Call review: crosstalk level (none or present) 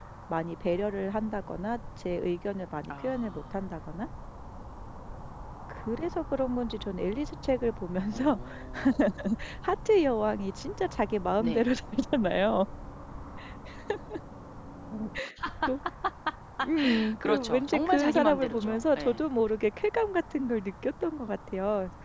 present